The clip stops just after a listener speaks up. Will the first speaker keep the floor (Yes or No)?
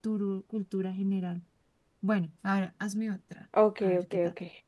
No